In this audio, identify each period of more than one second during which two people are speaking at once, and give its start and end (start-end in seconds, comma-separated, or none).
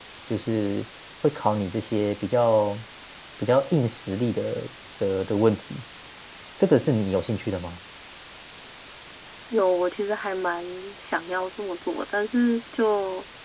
none